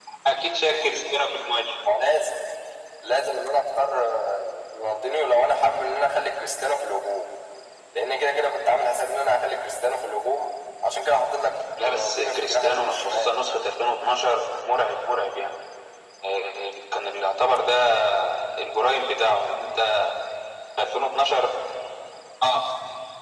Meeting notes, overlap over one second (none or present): present